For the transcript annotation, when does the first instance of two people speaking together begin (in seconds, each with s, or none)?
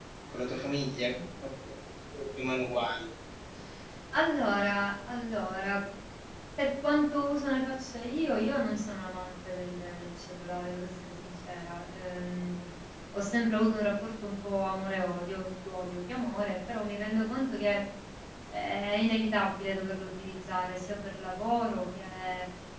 none